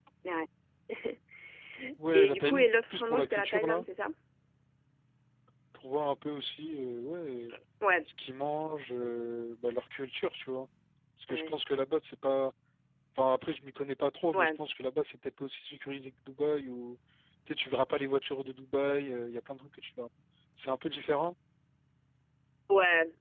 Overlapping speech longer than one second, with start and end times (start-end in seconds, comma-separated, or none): 2.1-3.9